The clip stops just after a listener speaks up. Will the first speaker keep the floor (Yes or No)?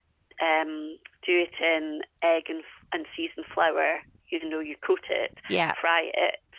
Yes